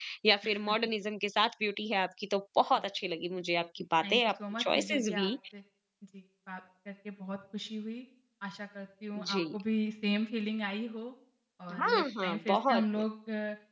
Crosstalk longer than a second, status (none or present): present